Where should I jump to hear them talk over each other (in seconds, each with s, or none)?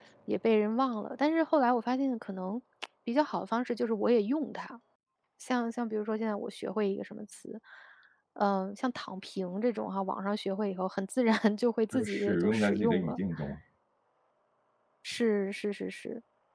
11.9 s